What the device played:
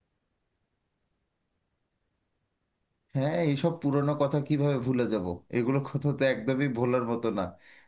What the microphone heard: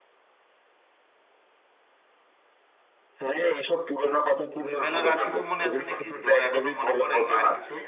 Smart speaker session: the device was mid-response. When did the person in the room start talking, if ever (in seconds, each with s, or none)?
4.6 s